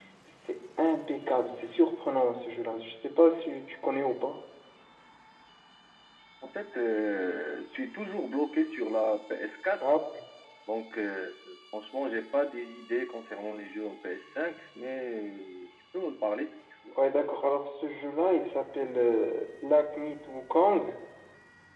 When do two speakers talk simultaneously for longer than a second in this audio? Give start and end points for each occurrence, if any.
none

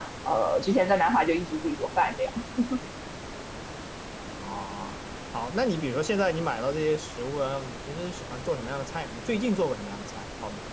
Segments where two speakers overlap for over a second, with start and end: none

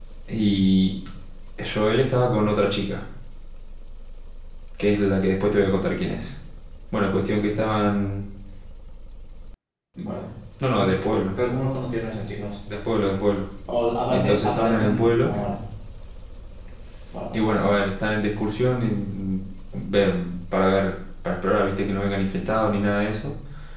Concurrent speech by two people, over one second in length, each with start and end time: 14.1-15.3

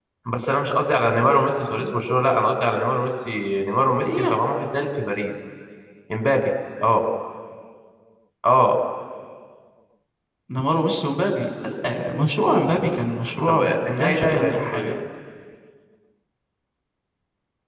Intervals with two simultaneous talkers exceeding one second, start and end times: 13.5-15.0

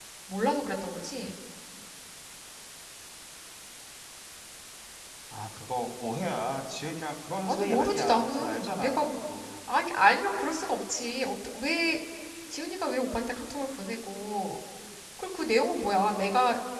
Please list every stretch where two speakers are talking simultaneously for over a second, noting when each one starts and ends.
7.4-9.1

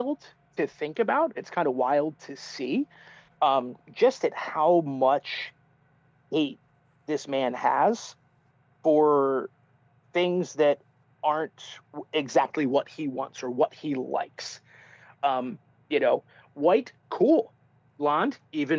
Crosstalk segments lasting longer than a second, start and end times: none

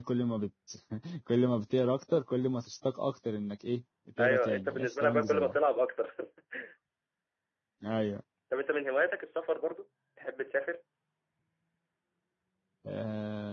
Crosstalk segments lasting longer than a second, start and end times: 4.2-5.6

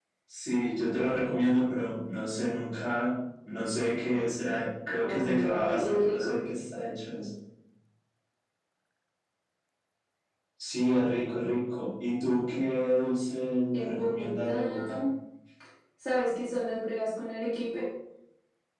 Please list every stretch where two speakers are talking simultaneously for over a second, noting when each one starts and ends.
5.0-6.3, 13.7-15.0

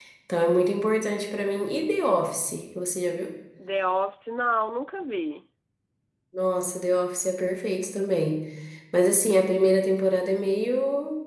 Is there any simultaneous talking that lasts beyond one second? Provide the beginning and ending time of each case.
none

